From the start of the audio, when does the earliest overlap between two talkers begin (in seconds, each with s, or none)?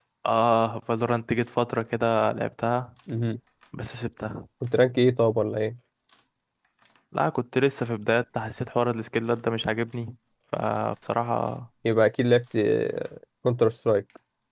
none